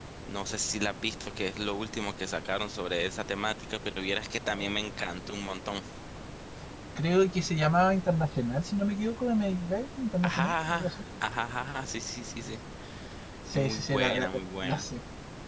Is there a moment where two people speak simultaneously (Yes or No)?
Yes